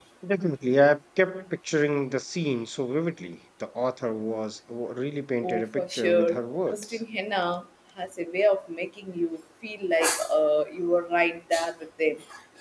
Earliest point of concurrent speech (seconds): 5 s

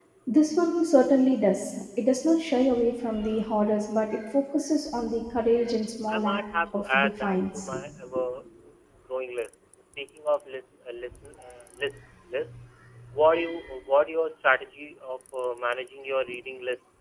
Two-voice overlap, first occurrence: 6 s

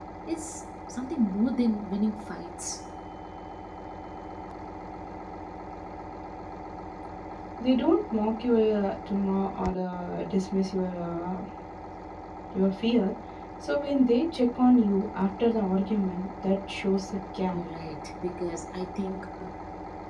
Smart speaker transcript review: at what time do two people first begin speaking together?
none

